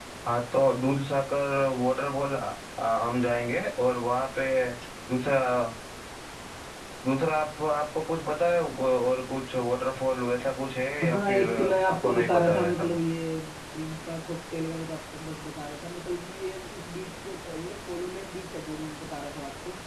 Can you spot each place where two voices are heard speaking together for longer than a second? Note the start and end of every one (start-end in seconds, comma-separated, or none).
11.0-13.0